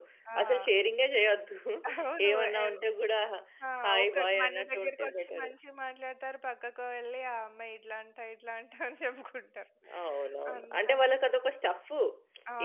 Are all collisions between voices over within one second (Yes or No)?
No